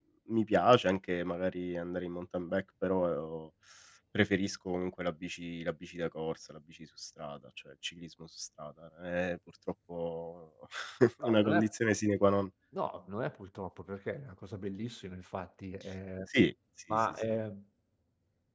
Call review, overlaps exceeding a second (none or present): none